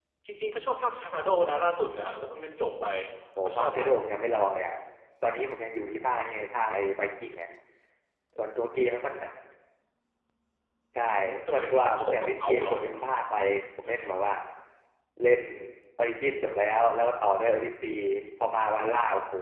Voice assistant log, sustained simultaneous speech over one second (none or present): present